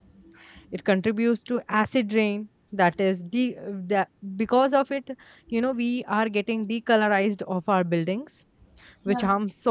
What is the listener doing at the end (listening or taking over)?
listening